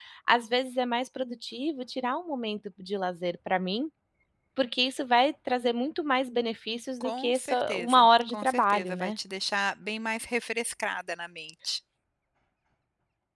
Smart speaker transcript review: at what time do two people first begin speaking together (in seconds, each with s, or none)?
7.0 s